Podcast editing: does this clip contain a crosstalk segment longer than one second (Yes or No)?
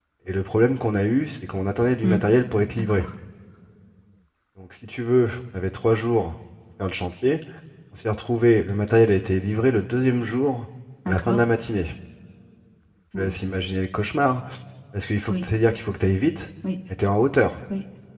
No